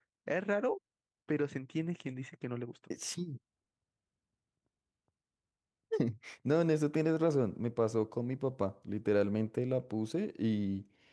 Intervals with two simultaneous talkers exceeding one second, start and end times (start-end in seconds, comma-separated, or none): none